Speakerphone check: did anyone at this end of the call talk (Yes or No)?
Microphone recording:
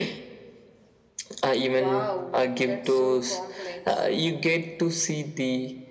Yes